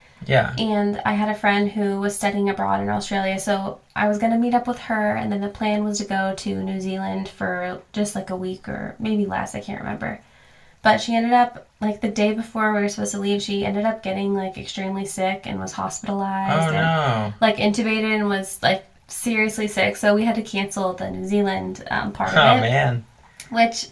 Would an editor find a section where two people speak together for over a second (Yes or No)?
No